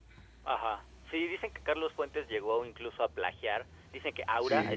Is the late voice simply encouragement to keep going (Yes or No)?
Yes